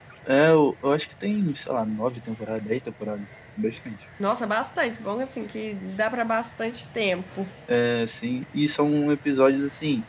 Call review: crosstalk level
none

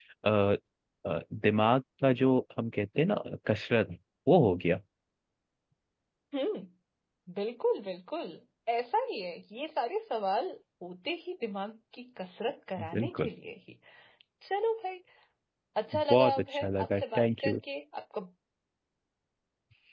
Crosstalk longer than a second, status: present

